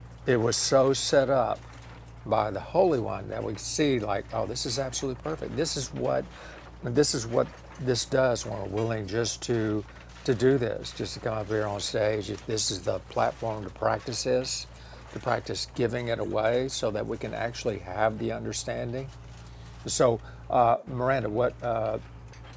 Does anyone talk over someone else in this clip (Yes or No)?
No